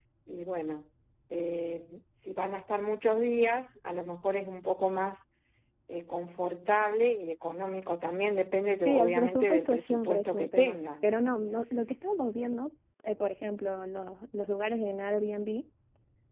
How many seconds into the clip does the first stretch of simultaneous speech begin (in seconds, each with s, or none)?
8.8 s